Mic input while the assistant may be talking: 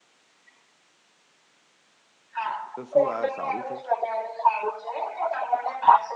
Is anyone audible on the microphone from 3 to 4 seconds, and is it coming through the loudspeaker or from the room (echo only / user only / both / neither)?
both